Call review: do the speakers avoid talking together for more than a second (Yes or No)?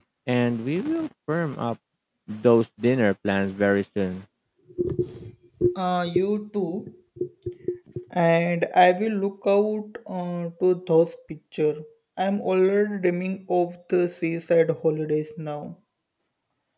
Yes